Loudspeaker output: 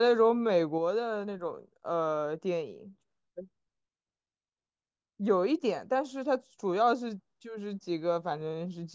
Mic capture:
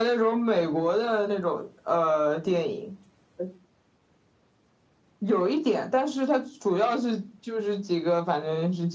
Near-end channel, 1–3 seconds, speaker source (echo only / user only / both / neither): echo only